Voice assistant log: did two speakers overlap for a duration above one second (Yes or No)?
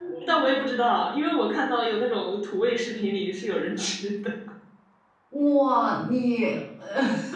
No